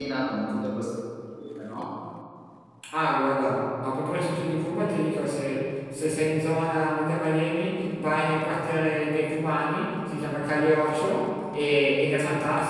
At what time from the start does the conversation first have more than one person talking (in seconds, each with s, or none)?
none